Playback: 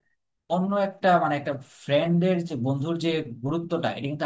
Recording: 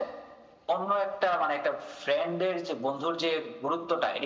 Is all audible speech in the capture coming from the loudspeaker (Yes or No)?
Yes